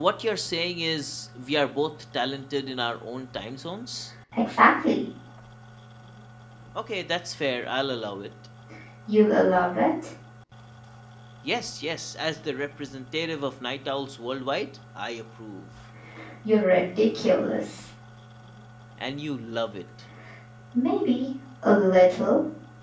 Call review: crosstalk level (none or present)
none